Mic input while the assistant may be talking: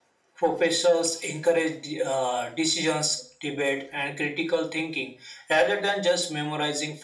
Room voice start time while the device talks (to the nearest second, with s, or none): none